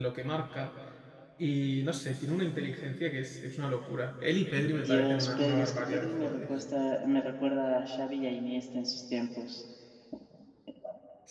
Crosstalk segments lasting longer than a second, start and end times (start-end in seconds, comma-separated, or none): 4.7-6.4